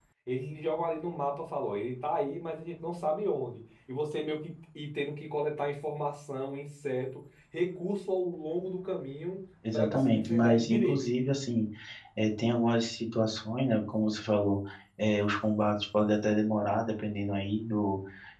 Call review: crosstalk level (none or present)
present